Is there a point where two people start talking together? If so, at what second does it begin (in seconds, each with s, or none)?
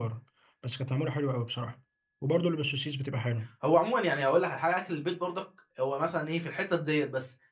none